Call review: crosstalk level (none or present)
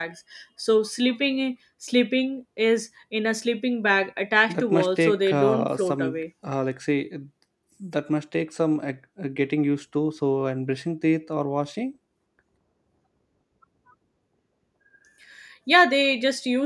present